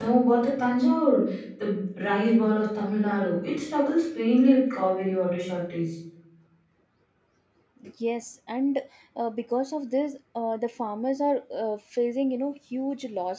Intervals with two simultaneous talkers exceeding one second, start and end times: none

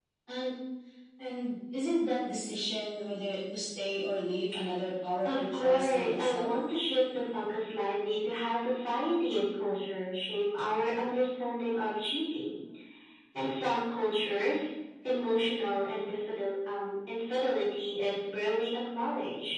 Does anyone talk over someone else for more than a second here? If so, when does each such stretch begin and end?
5.2-6.5

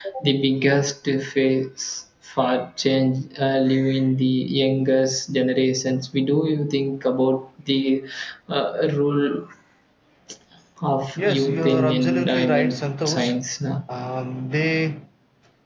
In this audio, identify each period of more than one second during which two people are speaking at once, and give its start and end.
11.2-13.4

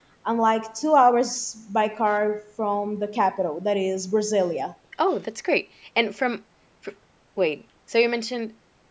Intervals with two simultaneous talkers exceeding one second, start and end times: none

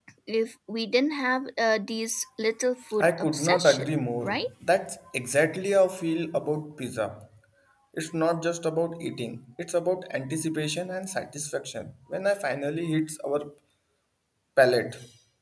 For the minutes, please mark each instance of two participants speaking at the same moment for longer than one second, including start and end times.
3.0-4.5

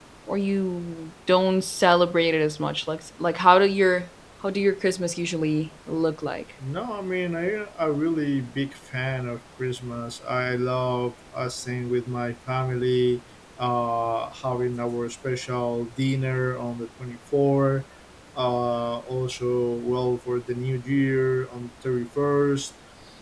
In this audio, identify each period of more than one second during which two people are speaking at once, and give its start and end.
none

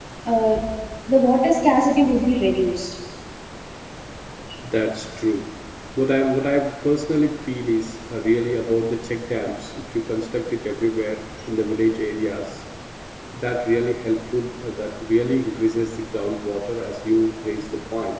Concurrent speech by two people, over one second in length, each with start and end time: none

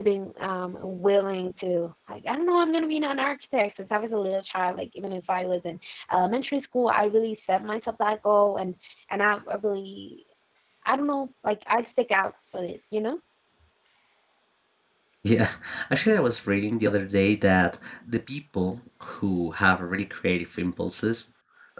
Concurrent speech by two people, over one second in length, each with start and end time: none

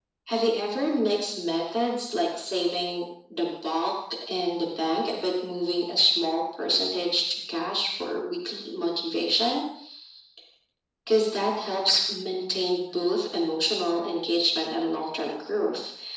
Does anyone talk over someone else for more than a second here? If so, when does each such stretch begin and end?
none

